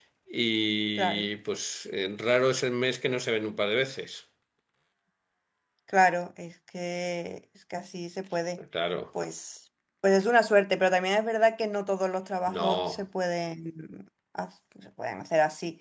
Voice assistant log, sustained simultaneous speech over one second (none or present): none